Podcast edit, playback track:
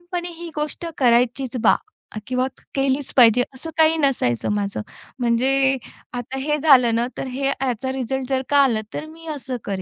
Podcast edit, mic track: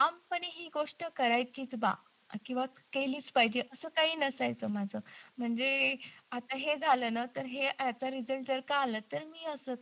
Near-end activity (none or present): none